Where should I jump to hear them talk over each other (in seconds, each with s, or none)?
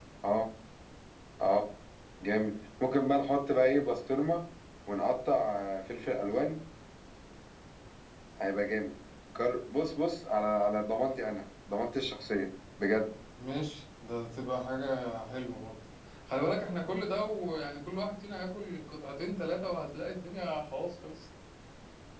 none